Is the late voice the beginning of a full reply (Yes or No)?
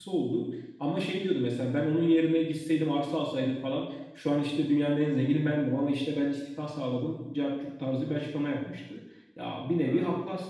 No